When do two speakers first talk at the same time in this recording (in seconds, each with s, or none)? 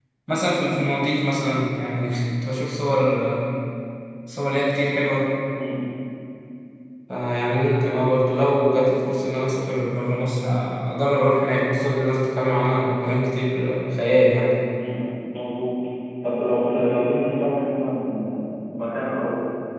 none